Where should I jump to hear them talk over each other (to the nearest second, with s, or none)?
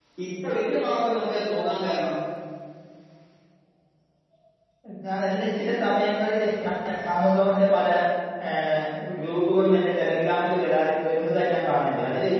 none